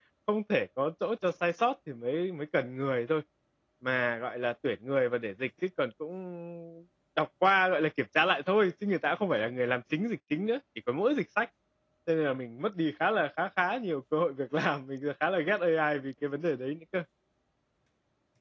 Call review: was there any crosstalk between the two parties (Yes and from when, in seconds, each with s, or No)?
No